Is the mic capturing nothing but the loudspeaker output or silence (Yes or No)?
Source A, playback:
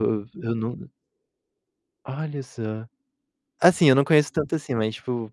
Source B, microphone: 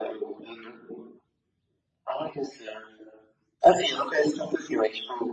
Yes